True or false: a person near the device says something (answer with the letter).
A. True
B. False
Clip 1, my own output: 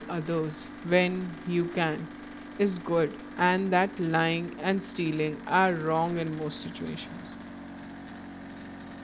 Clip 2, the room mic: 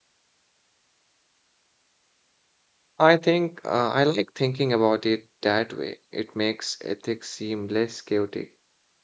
A